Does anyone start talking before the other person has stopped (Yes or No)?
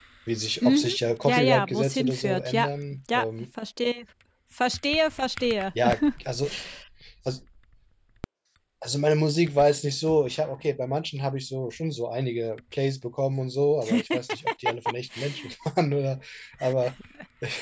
Yes